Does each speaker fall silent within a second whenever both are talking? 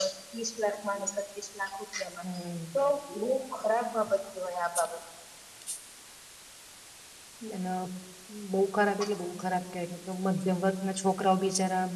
Yes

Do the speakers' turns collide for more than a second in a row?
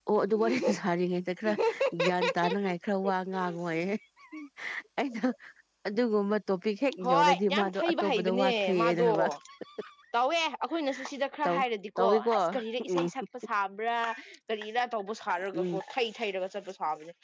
Yes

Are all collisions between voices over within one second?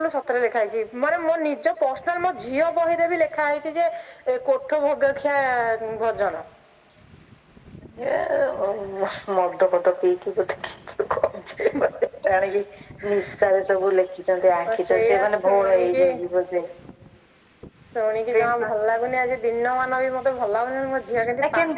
No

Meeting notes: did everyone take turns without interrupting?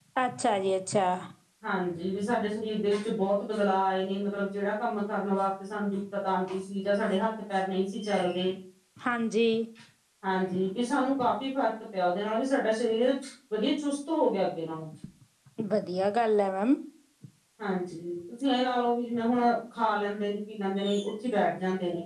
Yes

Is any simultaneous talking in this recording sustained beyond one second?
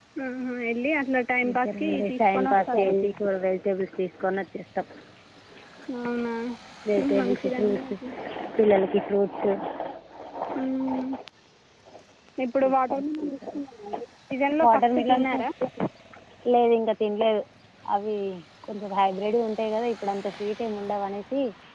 Yes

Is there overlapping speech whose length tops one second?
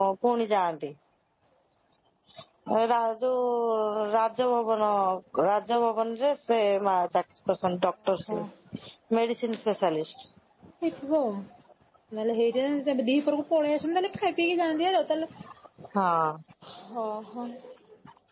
No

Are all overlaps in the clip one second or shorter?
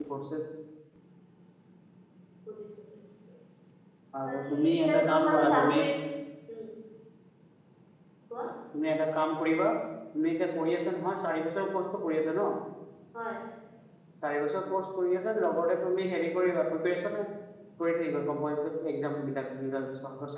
No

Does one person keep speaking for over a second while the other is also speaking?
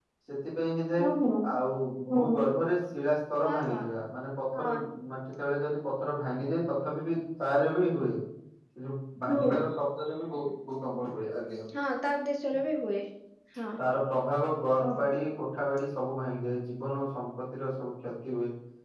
No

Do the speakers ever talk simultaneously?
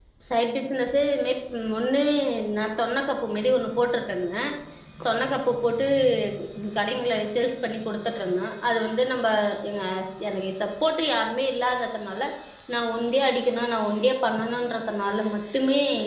No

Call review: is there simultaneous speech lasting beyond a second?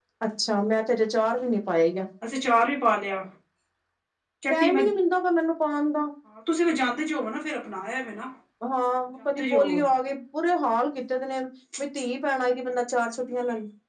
No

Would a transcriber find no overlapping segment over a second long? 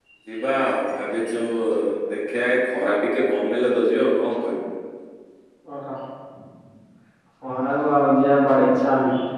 Yes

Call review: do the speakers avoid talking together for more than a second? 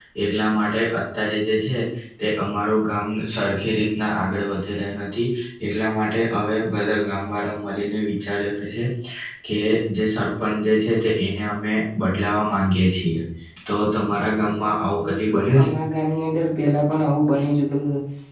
No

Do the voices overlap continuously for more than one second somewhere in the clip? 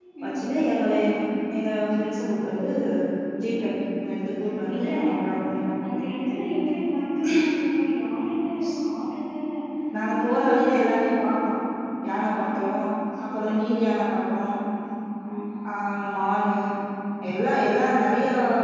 No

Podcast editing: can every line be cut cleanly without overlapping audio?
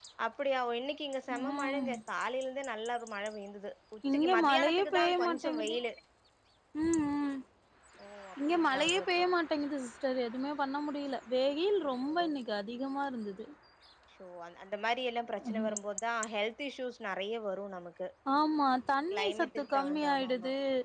No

